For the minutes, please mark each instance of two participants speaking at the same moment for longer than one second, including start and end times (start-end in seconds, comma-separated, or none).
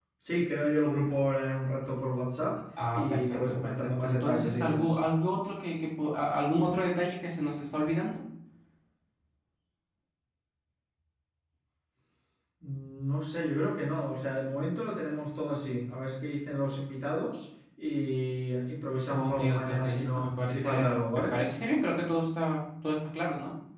2.9-5.0, 19.1-21.3